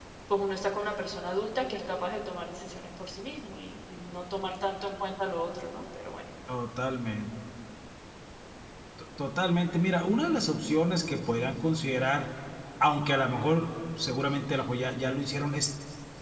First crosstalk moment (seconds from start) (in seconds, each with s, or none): none